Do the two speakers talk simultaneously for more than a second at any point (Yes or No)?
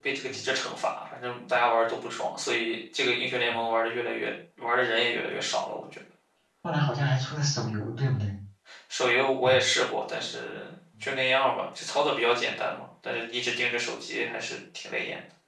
No